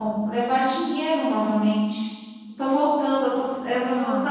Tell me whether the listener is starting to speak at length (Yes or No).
Yes